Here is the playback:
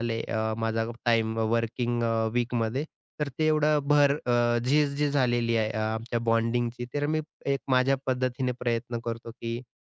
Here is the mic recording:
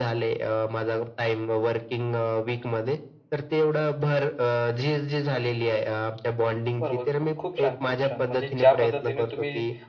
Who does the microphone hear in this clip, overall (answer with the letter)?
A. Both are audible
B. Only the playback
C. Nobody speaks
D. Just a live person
A